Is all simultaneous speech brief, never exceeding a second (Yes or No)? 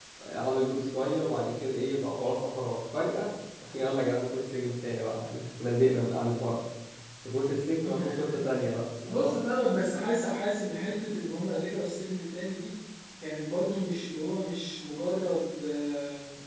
Yes